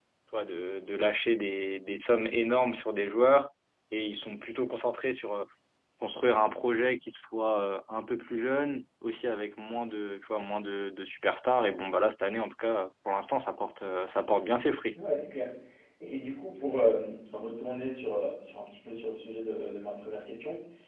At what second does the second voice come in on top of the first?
none

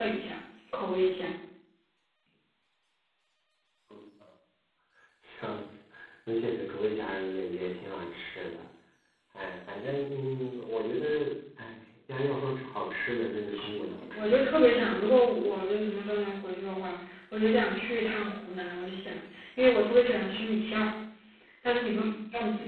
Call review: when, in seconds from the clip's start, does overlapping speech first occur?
13.5 s

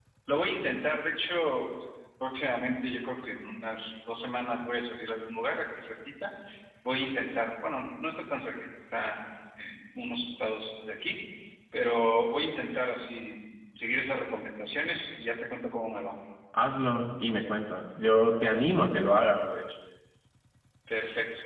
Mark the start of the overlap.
none

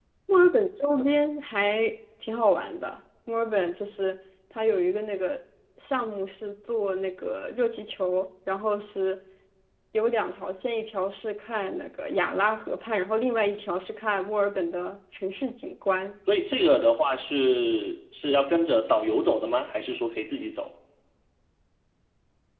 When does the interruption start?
none

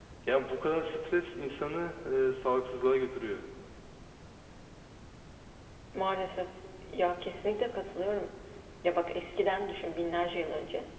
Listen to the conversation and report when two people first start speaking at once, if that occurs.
none

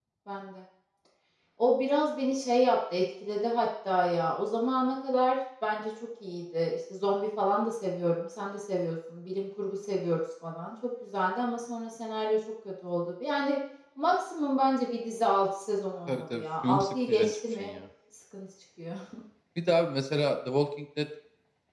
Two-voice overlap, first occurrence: 16.1 s

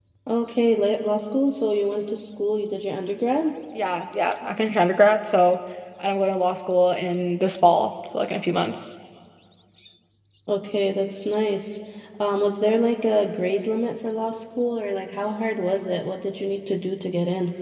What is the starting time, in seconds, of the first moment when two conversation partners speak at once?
none

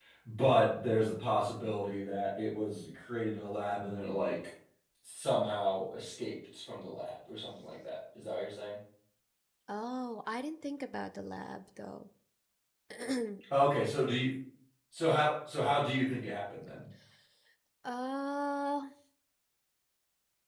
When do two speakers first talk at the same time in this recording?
none

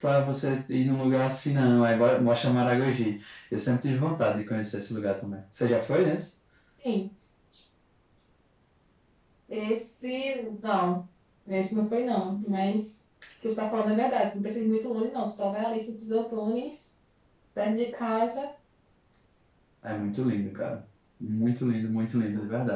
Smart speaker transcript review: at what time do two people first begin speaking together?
none

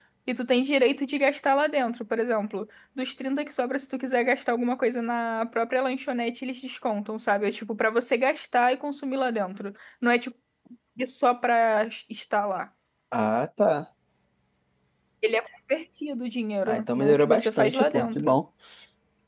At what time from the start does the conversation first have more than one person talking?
16.7 s

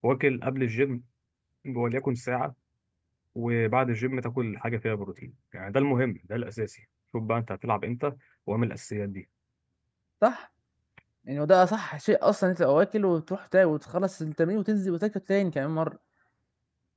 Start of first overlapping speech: none

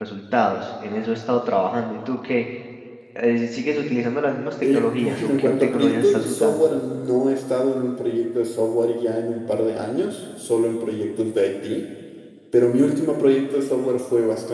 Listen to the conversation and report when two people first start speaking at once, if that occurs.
4.6 s

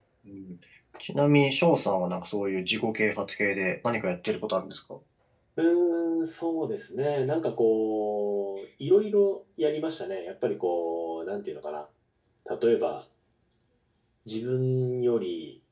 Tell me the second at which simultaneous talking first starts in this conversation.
none

